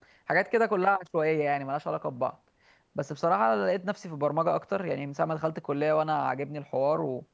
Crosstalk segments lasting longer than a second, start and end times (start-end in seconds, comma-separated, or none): none